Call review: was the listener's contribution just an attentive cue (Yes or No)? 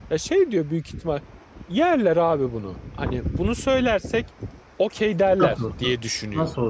No